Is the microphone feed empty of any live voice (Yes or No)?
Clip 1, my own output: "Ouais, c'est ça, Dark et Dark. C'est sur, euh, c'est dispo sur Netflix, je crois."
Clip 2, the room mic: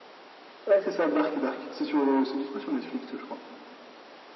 Yes